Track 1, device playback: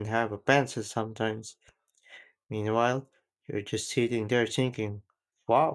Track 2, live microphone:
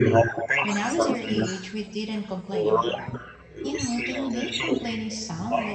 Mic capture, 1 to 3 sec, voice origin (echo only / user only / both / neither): both